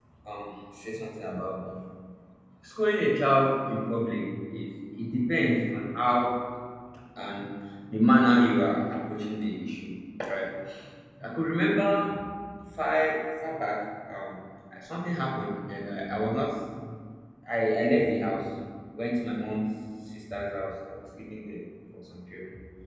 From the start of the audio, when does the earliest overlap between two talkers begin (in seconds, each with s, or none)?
none